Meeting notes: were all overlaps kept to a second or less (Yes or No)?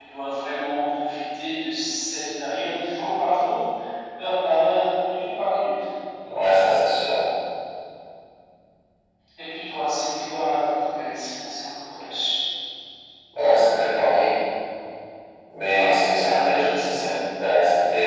No